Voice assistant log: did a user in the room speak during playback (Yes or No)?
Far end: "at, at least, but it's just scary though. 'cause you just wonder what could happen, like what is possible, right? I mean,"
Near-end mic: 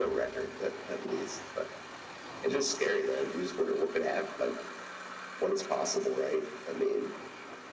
No